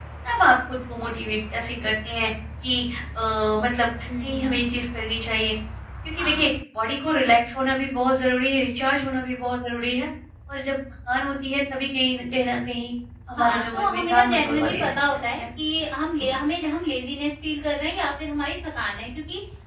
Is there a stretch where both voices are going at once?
Yes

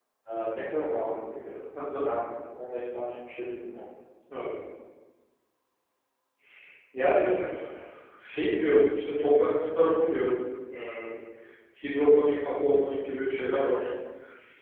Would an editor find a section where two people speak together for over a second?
No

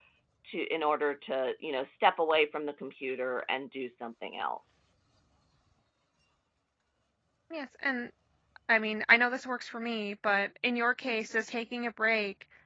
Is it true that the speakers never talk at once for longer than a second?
Yes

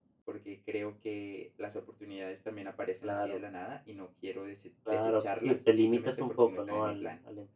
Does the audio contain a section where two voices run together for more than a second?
Yes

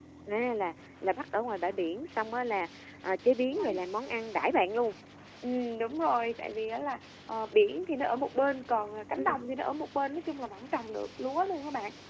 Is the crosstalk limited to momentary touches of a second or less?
Yes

